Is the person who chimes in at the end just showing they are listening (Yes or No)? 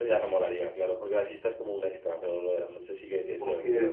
No